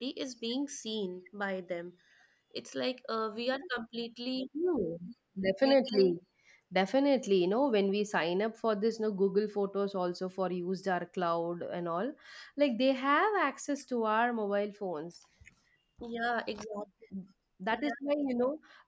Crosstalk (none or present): none